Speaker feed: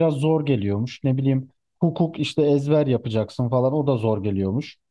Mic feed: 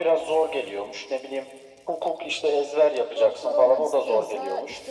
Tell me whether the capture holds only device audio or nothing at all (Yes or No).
No